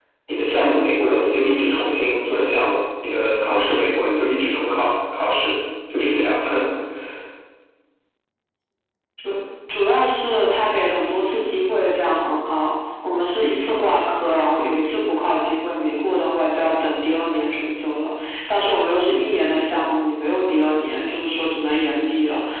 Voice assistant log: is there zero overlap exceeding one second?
Yes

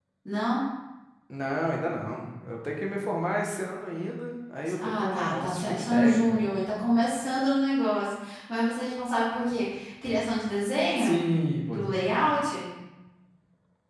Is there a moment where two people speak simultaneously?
Yes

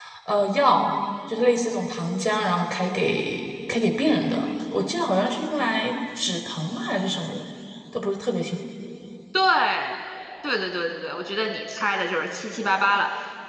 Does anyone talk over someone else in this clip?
No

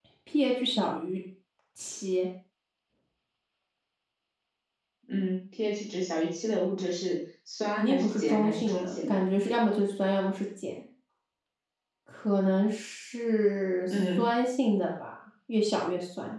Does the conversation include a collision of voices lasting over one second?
Yes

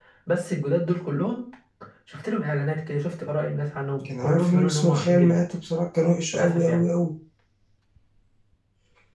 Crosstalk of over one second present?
Yes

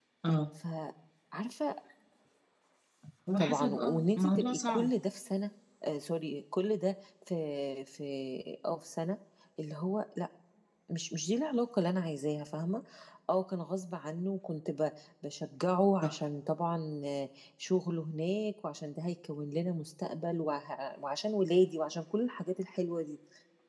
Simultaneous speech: Yes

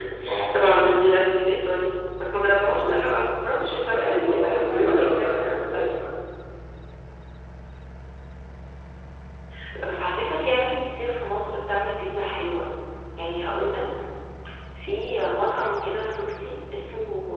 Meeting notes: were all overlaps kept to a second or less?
No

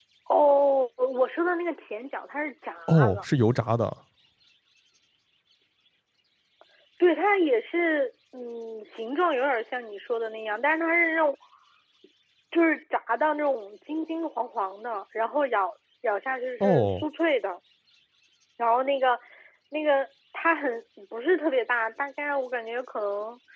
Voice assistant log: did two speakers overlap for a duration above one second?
No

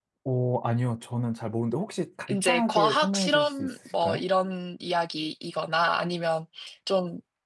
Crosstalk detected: Yes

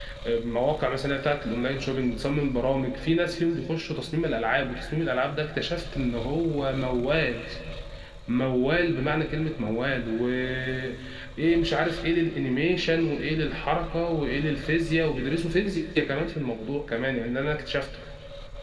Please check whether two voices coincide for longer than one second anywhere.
No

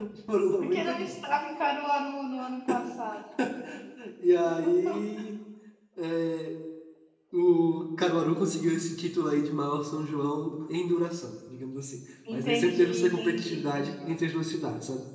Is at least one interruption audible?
Yes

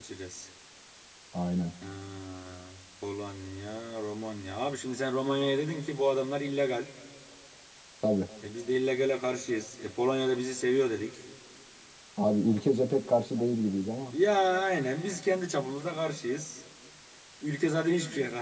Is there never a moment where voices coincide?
Yes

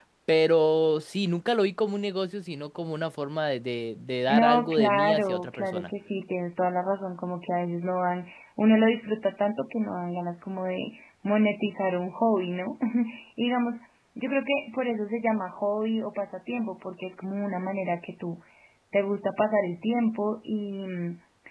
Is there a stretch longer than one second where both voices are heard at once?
Yes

